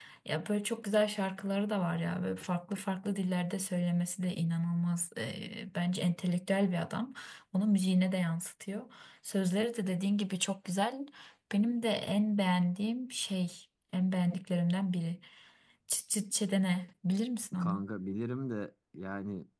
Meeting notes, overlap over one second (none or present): none